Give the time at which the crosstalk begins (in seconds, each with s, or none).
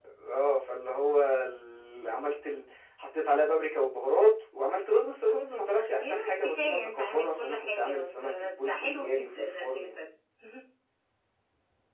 6.0 s